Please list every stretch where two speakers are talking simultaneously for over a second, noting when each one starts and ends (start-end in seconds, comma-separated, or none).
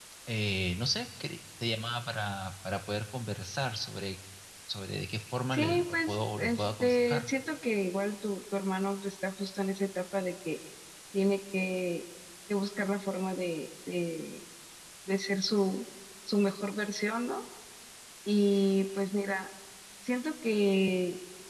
5.5-7.3